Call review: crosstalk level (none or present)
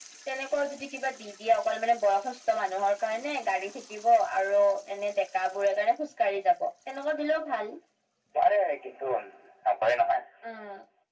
none